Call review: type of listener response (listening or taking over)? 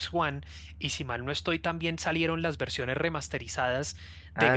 listening